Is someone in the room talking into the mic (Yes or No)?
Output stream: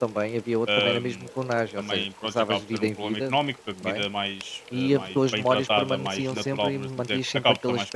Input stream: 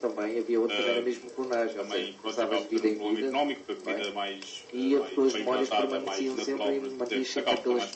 No